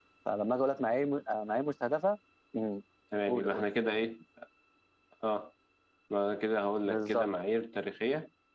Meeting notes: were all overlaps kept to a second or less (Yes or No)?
Yes